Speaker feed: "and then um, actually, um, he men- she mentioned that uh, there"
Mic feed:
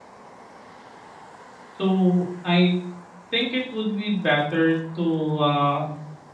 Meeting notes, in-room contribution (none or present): present